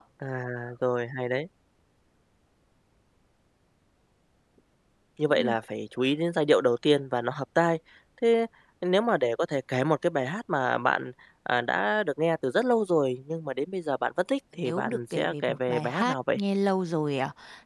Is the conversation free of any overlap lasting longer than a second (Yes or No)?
No